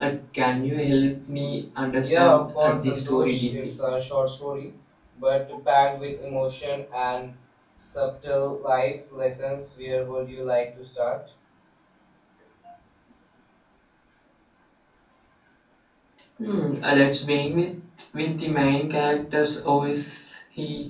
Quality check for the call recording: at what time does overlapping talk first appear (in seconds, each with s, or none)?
2.0 s